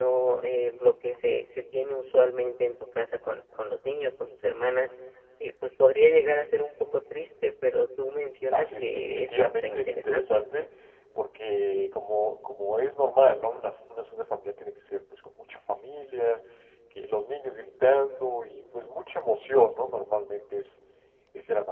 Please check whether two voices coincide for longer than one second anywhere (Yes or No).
Yes